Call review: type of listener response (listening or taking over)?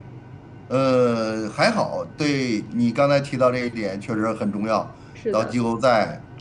listening